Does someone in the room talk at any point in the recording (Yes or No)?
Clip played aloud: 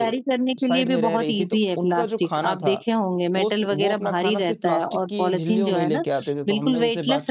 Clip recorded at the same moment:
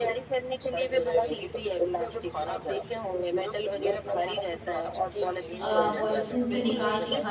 Yes